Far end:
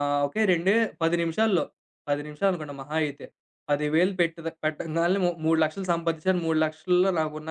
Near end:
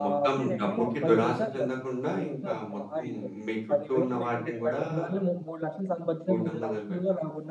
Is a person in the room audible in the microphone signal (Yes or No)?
Yes